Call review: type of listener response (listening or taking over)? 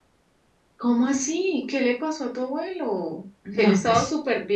listening